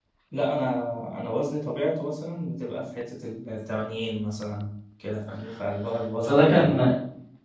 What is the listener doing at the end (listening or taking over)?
taking over